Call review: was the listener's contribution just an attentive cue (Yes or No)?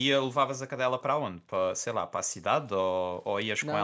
No